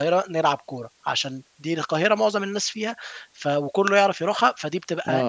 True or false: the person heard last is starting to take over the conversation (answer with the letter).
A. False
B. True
B